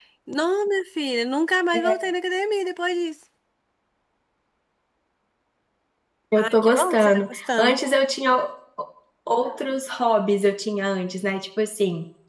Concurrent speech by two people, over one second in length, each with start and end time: 6.4-7.7

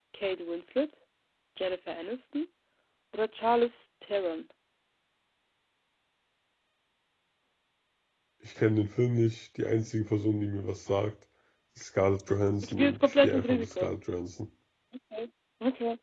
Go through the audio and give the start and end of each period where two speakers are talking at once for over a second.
12.6-13.9

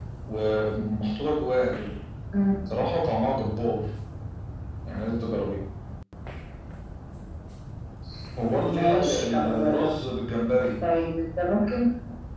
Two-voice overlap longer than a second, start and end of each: 8.7-9.9

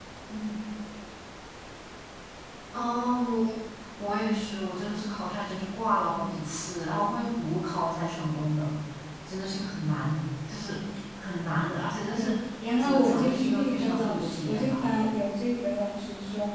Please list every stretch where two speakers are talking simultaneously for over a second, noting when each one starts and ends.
12.8-14.8

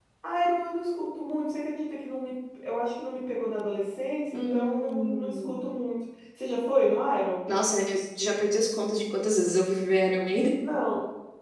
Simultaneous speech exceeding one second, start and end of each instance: 4.3-5.6

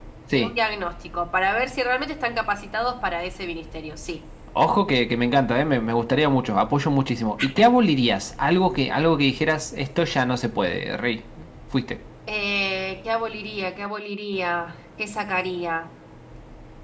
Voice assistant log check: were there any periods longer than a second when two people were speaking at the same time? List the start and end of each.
none

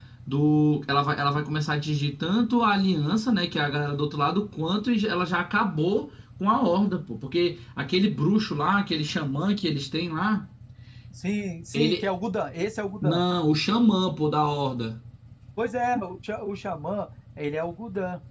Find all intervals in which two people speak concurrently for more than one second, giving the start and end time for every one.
none

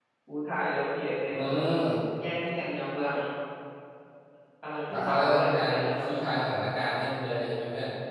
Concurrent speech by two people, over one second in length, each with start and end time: 4.9-6.7

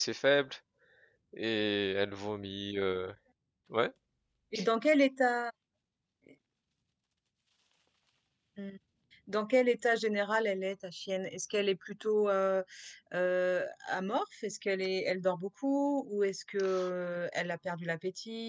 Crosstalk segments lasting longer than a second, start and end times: none

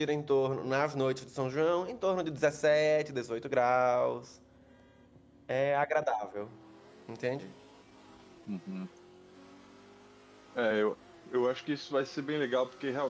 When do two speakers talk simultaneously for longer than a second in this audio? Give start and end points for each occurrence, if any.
none

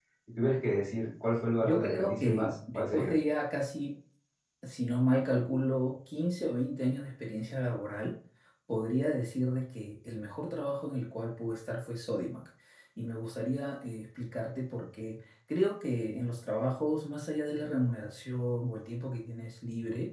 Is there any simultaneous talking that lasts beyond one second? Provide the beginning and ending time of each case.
1.6-3.1

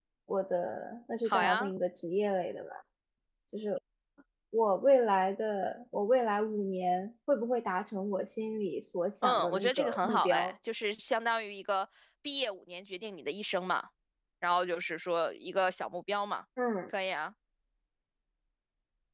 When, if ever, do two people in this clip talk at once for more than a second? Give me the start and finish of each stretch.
9.2-10.5

